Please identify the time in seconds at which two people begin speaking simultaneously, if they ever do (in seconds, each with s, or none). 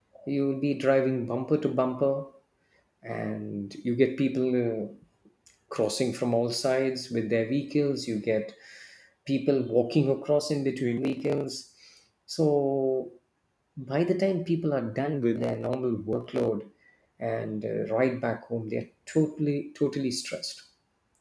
none